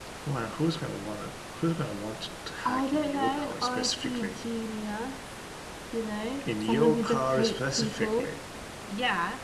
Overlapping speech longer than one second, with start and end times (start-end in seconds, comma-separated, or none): 2.6-4.4, 6.6-8.3